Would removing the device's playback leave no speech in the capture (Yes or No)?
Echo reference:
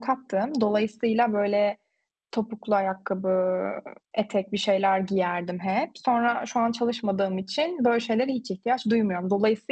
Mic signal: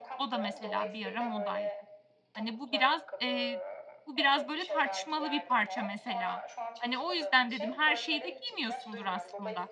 No